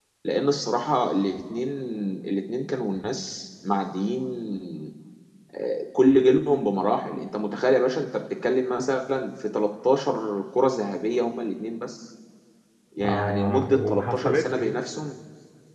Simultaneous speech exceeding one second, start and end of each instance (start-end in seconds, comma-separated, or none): 13.0-14.8